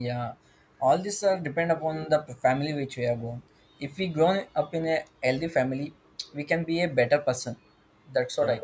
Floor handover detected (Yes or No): No